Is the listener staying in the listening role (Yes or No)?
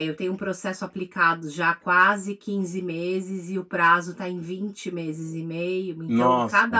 Yes